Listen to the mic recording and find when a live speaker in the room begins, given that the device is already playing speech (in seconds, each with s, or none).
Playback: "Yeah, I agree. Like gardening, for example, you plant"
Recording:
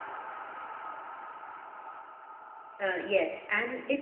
2.8 s